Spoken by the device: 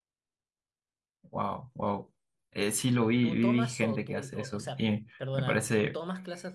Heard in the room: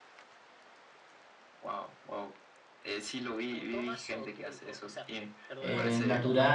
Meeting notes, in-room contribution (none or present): present